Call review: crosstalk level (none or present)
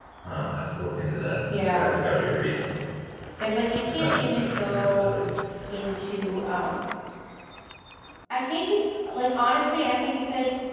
present